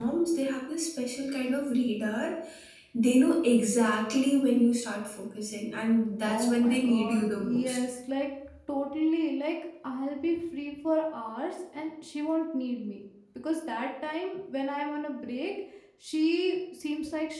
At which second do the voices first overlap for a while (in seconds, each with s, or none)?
6.3 s